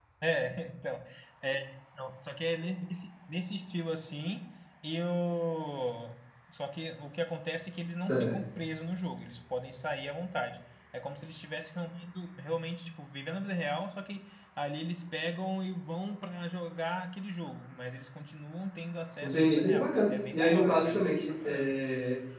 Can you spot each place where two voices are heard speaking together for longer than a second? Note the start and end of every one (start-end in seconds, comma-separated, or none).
19.2-21.7